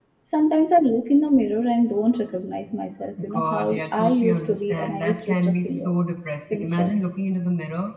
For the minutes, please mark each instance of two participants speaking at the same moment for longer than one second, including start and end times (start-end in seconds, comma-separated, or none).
3.3-5.9